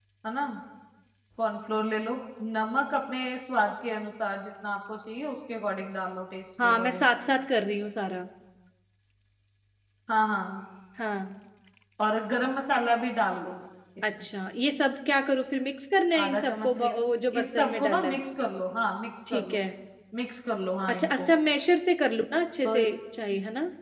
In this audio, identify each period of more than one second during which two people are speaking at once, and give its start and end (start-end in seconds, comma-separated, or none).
16.2-18.2